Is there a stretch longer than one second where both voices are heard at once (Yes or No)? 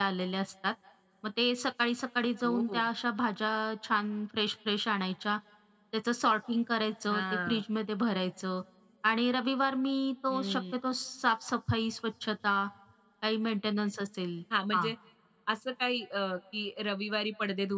No